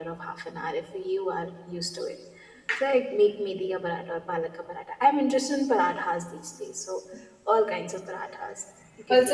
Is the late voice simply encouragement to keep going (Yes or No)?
No